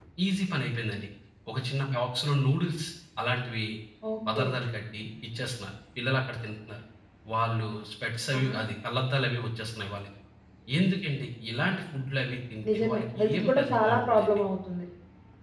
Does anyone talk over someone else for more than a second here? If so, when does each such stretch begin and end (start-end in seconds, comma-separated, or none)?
12.7-14.4